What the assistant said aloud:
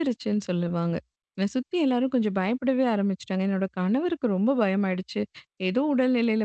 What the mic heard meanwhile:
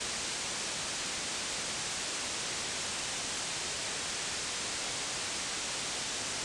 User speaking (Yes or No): No